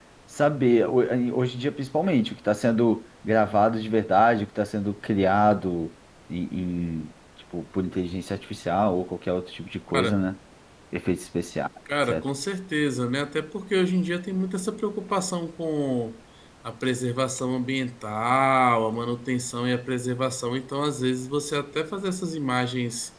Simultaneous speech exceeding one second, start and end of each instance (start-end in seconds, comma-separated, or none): none